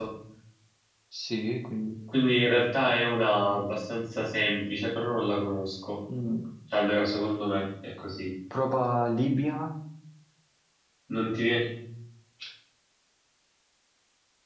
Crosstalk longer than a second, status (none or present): none